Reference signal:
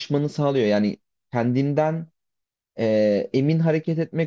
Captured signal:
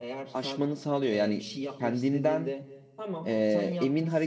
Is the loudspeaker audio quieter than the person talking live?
No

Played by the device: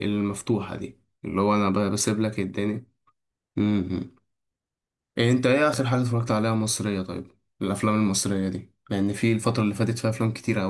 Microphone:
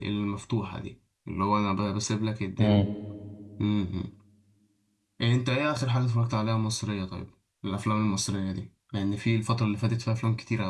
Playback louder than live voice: No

